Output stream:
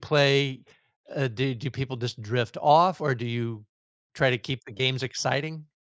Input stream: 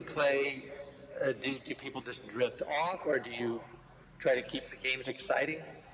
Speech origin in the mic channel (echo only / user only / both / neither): echo only